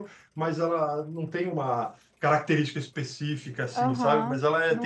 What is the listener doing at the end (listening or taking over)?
taking over